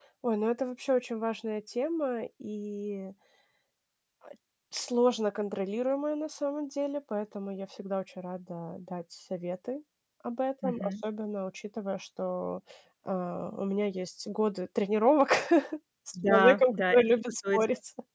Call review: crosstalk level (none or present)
present